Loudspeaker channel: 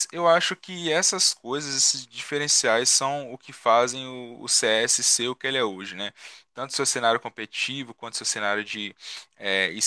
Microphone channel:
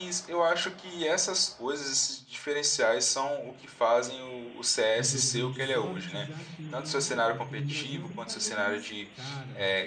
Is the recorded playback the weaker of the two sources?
No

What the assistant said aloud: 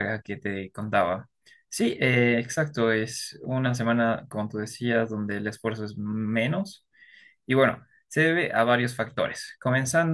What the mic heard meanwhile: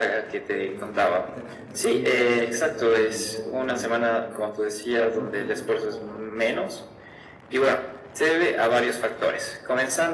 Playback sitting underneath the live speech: No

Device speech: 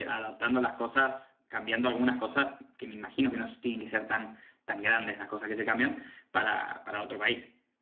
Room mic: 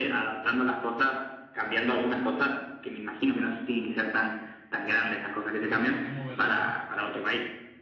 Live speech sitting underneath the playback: Yes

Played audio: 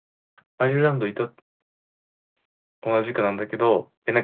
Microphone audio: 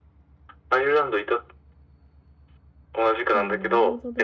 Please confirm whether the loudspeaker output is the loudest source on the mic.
Yes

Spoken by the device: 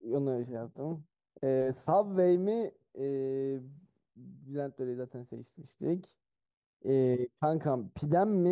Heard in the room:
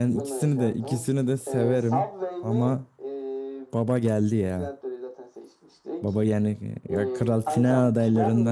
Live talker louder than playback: Yes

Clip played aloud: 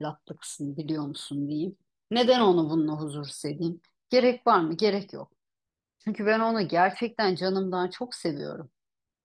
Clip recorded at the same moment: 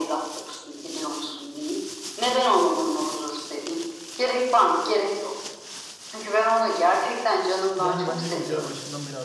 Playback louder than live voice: Yes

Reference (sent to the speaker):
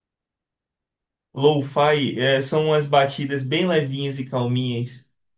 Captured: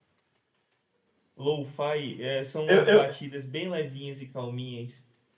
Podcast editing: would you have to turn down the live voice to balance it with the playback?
Yes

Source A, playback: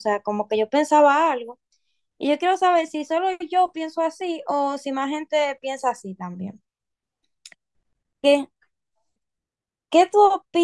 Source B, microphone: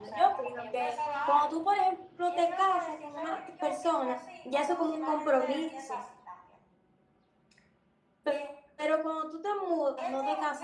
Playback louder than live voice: No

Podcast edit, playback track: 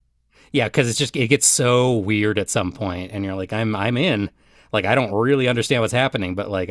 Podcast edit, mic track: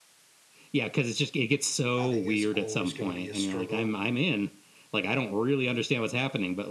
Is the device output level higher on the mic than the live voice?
Yes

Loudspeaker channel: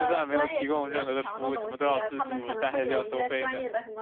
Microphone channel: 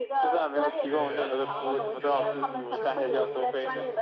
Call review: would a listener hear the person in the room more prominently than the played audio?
No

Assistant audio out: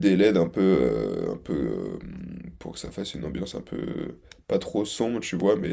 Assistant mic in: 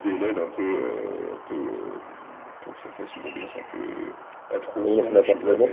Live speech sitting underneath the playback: No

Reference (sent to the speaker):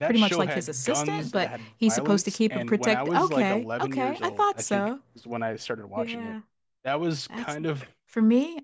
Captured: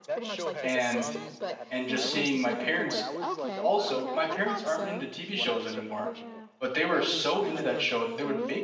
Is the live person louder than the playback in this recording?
Yes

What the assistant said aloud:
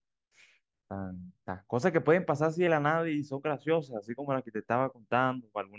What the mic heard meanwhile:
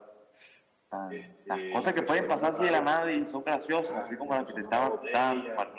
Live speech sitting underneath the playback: Yes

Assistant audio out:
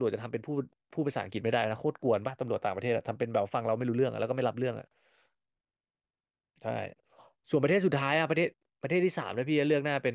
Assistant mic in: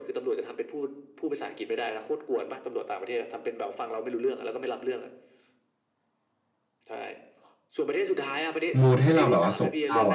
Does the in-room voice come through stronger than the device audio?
Yes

